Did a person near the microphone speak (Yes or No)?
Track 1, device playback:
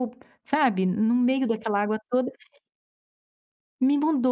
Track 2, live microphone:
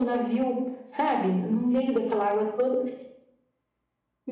No